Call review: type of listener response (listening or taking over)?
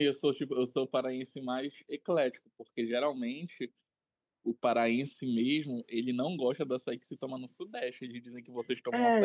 taking over